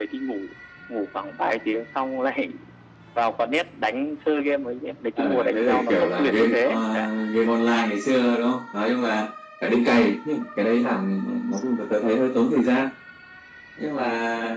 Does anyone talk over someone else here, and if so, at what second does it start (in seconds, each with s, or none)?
5.2 s